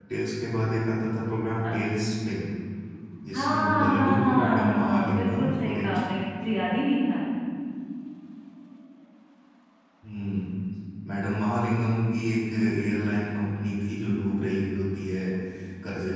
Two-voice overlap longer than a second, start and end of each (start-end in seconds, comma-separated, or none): 3.3-5.9